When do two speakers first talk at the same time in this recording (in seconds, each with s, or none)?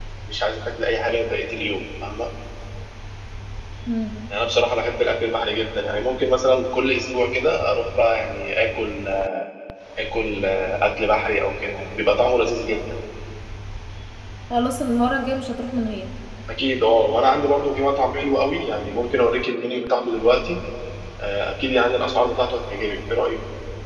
none